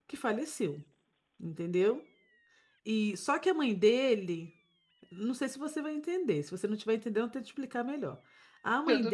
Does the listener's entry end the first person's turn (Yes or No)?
No